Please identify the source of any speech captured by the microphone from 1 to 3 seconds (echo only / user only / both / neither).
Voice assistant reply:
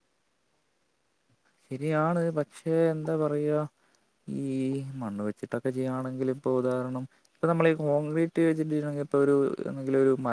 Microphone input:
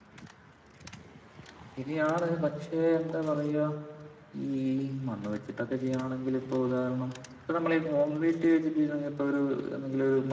echo only